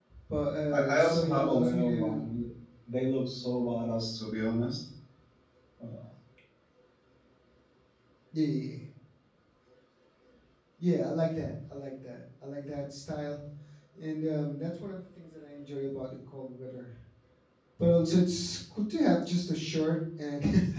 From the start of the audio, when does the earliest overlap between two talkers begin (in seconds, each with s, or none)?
0.8 s